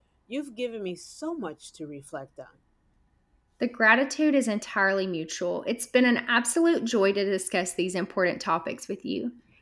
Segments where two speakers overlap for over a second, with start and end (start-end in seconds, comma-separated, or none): none